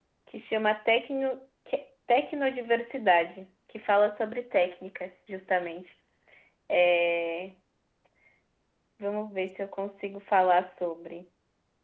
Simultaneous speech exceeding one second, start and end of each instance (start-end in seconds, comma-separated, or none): none